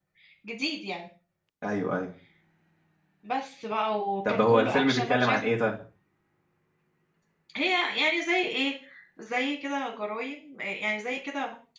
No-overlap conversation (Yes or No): No